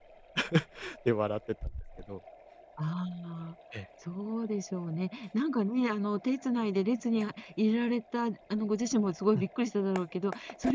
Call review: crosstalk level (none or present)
none